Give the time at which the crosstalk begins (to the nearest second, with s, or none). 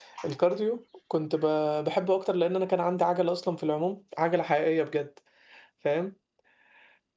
none